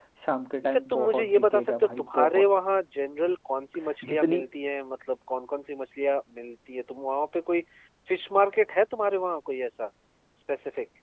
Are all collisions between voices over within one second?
No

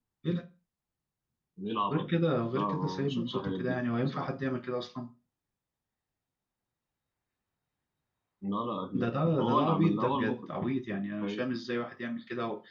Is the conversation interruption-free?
No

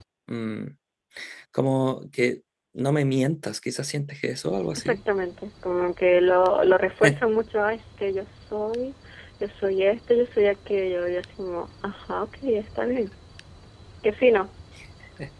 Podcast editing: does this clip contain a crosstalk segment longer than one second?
No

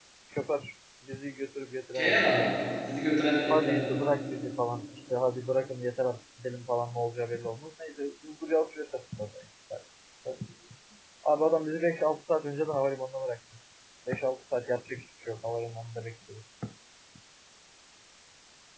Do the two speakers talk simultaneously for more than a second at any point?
No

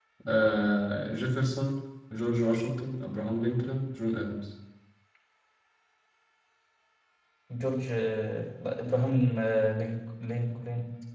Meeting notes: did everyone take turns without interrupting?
Yes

